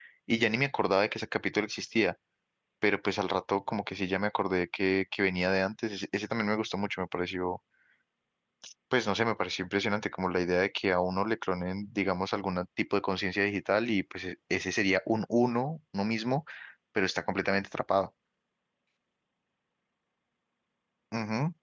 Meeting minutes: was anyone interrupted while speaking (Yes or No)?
No